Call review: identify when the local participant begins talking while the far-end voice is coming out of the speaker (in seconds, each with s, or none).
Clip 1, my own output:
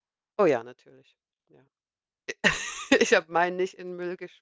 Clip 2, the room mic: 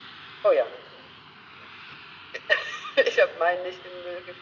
none